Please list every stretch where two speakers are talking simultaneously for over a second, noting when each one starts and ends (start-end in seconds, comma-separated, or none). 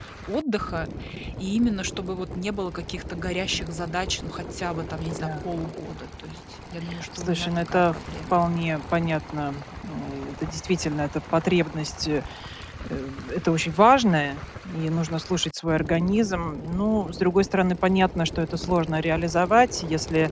7.2-8.4